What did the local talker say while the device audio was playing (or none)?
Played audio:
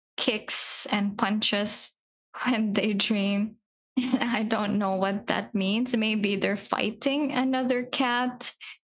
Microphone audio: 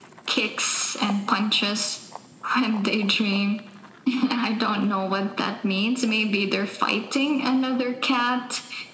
none